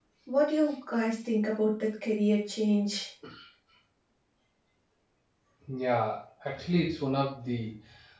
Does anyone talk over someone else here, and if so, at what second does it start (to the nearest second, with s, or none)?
none